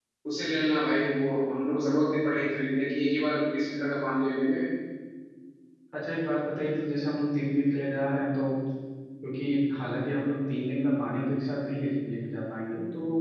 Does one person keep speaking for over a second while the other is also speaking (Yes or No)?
No